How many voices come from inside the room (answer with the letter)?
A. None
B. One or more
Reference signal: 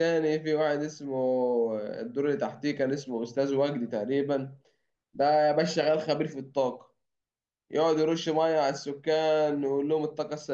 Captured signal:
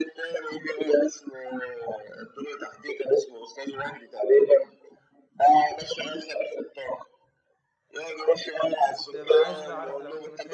B